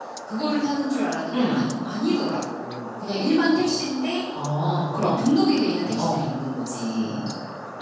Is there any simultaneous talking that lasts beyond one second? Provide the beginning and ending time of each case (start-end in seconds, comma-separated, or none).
none